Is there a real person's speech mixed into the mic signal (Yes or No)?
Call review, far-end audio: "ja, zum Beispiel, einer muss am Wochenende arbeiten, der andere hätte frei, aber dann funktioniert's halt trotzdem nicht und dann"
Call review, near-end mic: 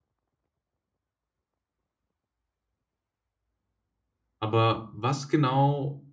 Yes